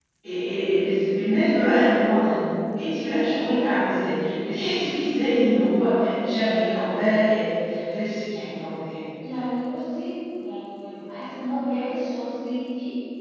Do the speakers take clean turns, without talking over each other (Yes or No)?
Yes